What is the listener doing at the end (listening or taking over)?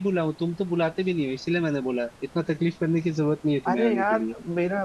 taking over